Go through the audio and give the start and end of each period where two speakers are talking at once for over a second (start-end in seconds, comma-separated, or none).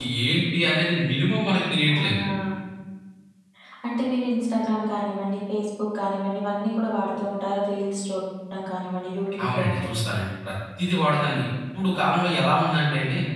none